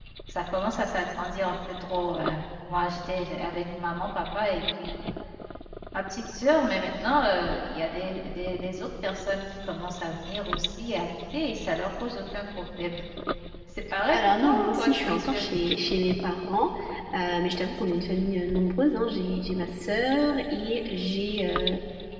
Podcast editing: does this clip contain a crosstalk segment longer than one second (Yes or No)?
Yes